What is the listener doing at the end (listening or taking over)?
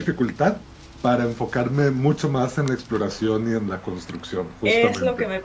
taking over